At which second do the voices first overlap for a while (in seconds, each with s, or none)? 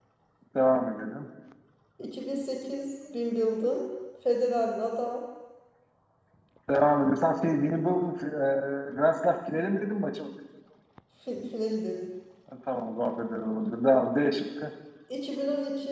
none